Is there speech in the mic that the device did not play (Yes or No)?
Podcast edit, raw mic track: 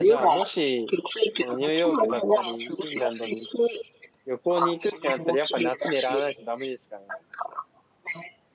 Yes